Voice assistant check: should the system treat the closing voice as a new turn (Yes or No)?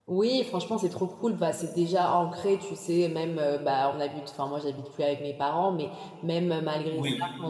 No